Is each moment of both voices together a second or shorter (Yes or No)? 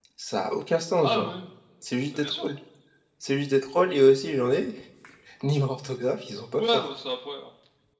Yes